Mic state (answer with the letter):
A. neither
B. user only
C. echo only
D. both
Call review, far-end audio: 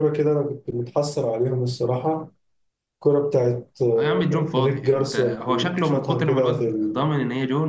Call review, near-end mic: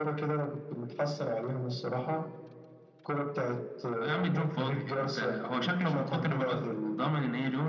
C